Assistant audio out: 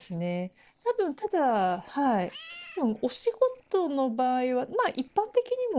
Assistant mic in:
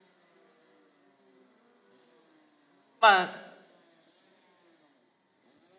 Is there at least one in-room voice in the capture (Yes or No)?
Yes